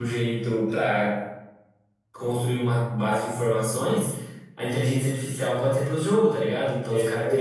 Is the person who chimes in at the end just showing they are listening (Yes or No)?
Yes